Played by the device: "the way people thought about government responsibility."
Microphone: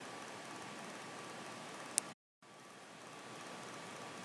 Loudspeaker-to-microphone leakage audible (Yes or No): No